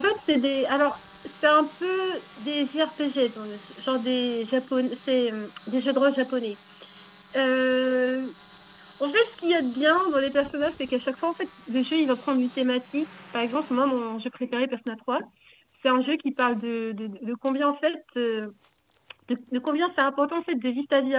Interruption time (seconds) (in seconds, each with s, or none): none